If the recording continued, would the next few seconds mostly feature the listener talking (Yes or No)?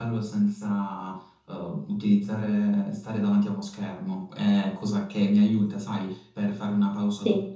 No